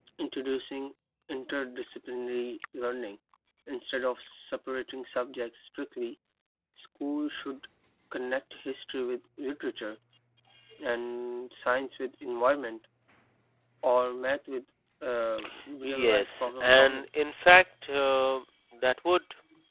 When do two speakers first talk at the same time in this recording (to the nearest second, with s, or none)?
16 s